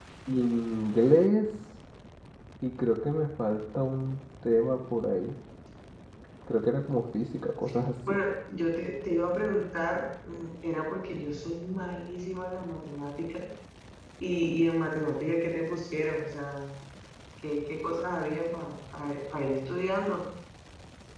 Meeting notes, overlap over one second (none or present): none